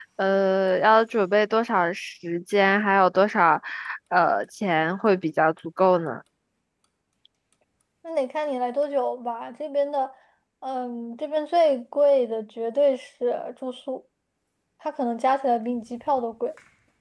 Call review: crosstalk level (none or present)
none